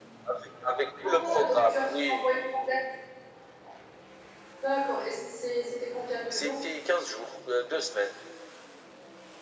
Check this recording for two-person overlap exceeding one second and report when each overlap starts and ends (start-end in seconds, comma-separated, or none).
1.0-2.4